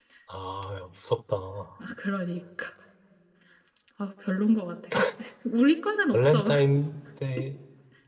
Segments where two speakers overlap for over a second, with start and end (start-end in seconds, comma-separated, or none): none